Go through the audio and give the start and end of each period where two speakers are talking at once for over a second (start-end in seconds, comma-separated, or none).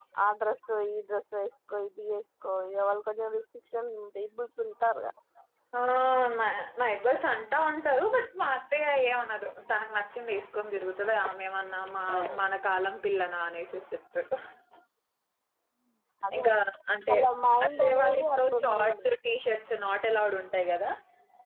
17.6-19.1